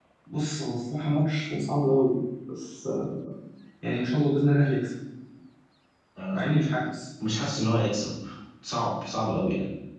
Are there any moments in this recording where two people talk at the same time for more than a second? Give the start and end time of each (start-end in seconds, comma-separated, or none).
none